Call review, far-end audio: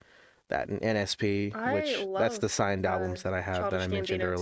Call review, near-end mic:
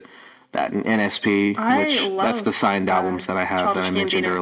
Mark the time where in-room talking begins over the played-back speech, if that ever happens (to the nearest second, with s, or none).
none